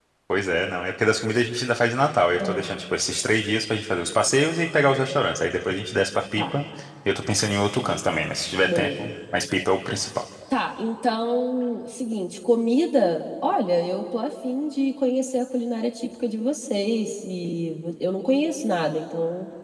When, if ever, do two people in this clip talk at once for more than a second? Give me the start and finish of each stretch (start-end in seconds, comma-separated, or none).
none